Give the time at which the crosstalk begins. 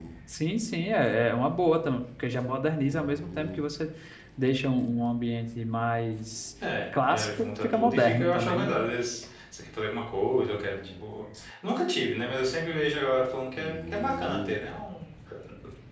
7.1 s

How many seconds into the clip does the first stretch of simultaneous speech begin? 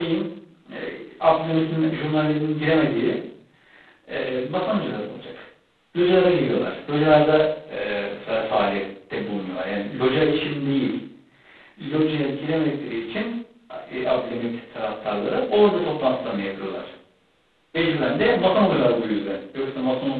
none

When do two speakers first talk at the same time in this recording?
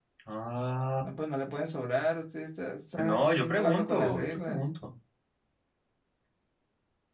3.0 s

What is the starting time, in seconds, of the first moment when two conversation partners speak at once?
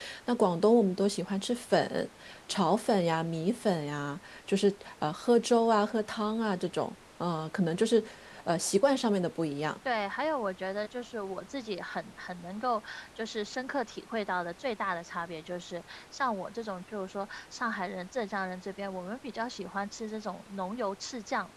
none

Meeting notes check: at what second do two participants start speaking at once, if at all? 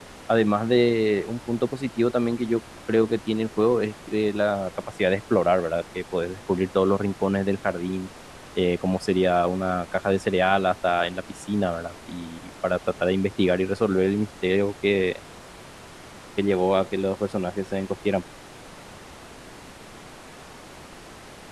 none

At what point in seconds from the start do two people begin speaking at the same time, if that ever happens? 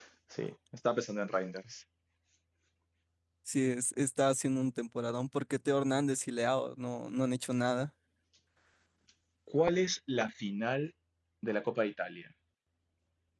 none

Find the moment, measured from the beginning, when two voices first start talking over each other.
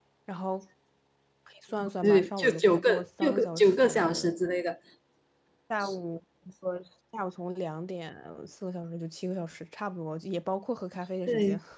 2.0 s

